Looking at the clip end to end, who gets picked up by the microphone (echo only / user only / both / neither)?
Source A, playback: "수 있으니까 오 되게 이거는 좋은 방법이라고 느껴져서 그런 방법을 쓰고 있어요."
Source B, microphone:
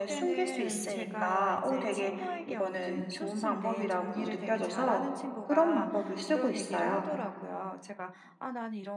both